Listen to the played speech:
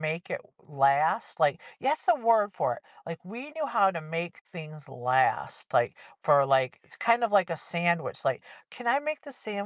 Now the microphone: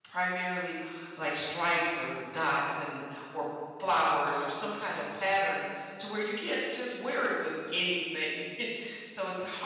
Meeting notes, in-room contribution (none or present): present